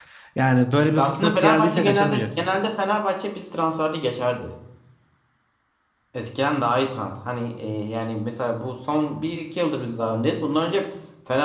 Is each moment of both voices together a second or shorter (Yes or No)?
No